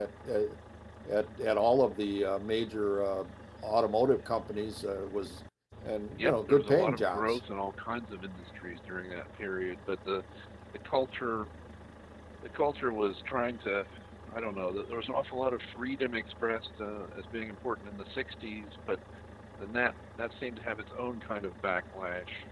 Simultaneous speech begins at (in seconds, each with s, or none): 6.2 s